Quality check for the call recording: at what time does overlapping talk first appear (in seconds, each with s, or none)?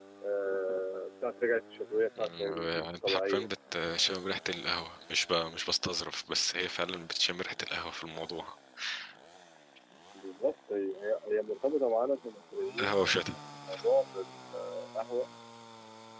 2.2 s